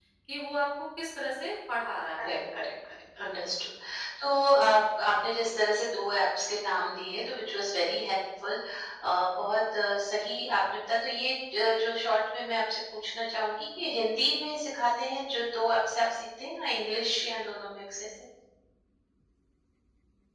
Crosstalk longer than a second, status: none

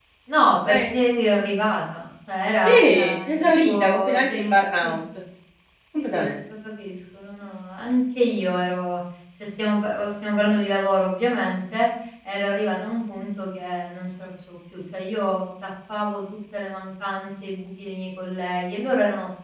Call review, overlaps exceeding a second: present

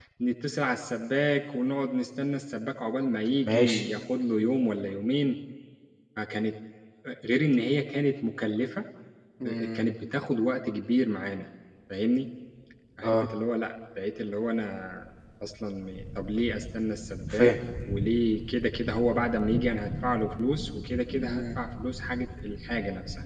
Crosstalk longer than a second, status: none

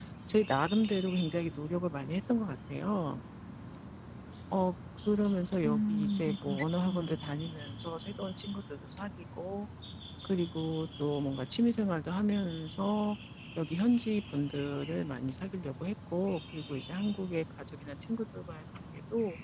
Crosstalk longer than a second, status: present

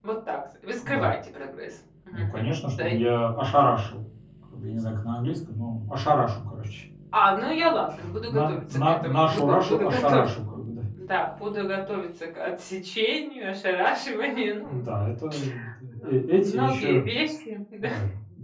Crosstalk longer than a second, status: present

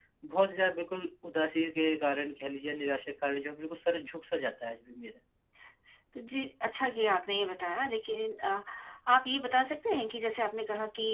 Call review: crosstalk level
none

